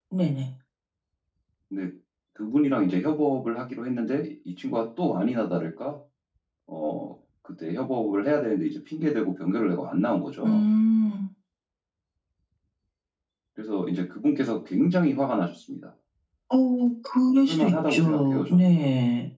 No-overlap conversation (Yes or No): No